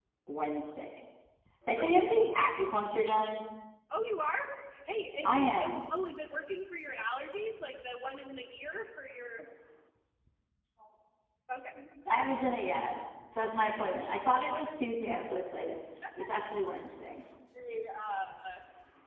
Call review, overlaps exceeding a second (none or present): none